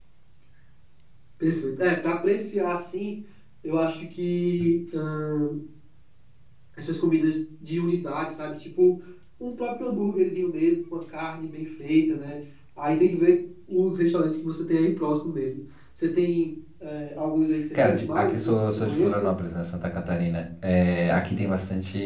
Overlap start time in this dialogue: 17.7 s

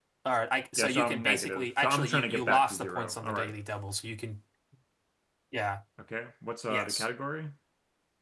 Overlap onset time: 0.8 s

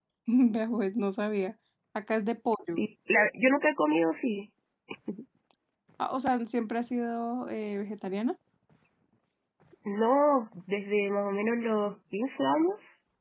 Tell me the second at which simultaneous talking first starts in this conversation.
none

